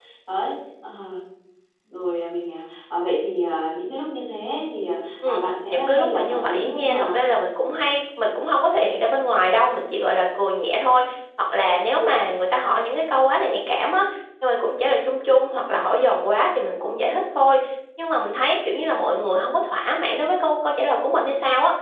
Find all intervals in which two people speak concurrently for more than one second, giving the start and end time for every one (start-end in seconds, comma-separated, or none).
5.2-7.2